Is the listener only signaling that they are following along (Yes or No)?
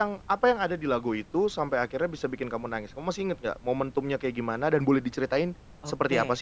No